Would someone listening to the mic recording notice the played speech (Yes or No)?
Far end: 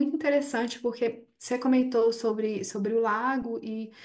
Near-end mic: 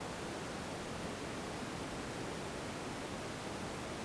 No